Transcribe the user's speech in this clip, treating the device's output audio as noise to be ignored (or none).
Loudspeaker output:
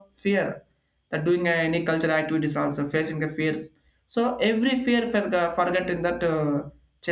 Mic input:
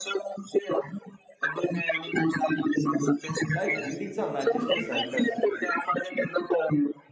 Like buildings are not just a shelters,